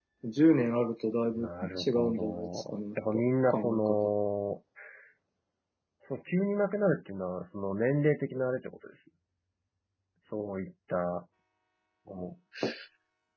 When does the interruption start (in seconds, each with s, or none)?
1.3 s